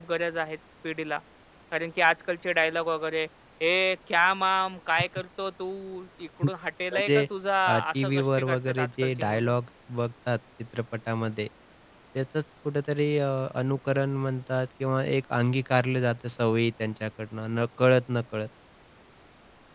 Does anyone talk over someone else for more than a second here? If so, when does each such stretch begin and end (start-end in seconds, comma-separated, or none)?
7.7-9.5